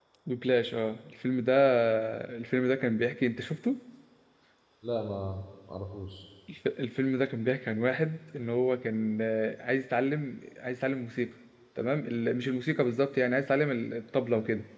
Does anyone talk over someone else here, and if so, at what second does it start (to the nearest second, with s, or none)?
none